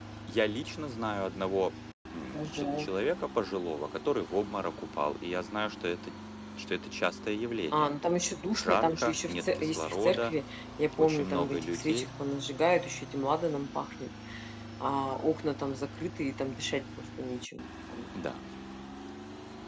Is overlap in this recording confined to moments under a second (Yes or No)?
No